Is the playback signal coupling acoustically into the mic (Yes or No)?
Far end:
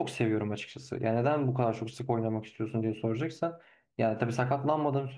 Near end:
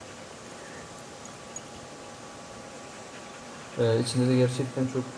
No